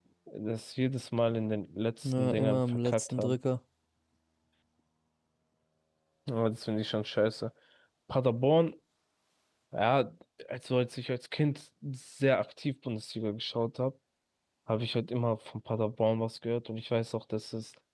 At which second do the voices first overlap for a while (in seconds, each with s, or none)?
2.0 s